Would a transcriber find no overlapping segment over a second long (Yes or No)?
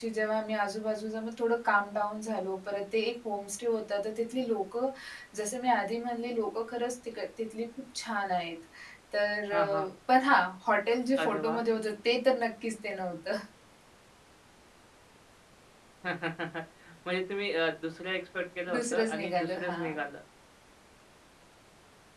No